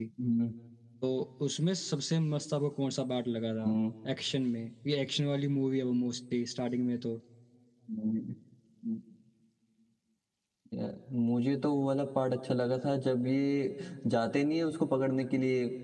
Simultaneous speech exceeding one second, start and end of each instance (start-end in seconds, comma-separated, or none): none